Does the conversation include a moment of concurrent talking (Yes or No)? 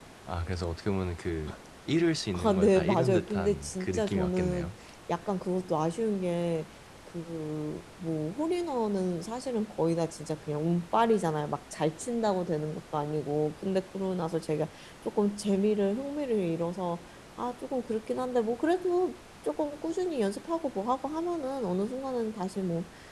Yes